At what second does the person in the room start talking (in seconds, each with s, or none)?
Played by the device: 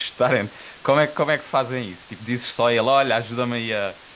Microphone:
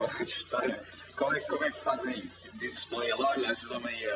none